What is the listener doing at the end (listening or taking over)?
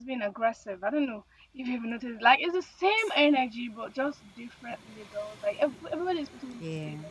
listening